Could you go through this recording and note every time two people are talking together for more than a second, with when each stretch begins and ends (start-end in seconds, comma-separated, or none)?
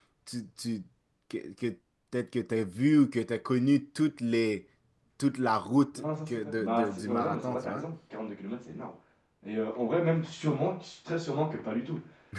6.0-7.8